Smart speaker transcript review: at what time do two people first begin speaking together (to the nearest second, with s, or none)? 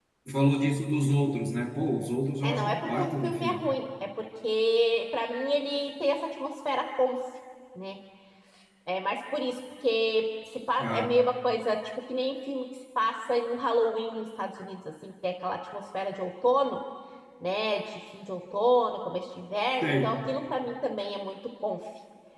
2 s